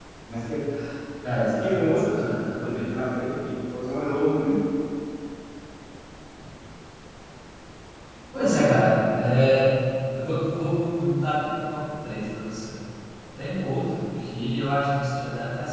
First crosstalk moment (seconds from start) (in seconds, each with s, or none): 1.6 s